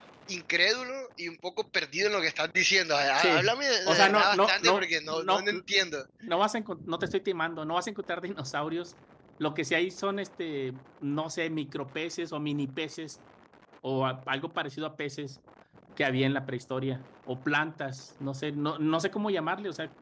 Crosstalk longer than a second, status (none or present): present